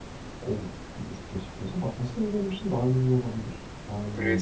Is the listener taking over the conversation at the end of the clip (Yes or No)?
Yes